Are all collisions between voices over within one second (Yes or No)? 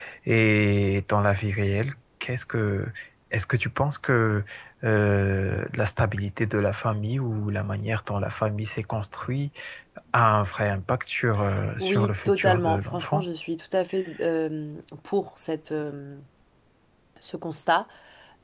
No